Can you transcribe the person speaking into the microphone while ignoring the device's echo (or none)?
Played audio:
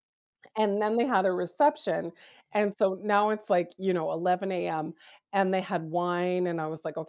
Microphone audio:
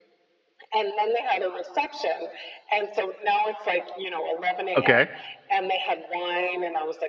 Okay.